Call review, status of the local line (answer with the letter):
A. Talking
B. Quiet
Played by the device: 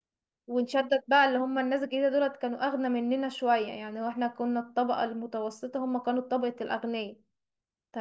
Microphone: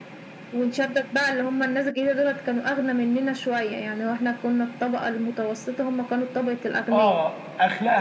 A